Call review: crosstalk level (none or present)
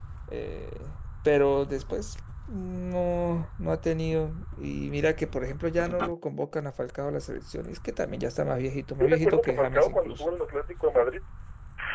present